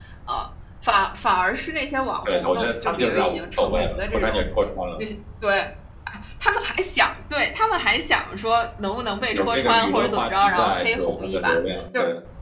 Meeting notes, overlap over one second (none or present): present